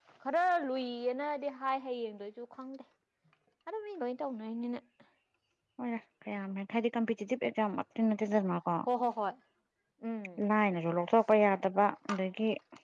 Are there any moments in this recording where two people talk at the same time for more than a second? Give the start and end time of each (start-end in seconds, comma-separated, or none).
none